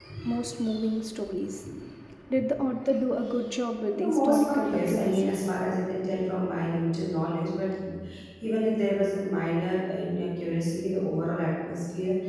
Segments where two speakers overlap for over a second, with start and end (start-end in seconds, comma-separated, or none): 3.9-5.3